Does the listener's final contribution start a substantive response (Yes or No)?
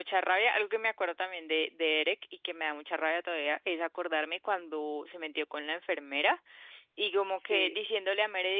No